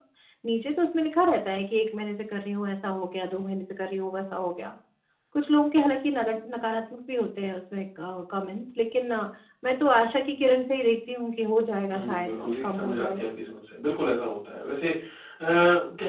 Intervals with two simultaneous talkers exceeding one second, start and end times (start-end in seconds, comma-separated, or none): 11.9-13.2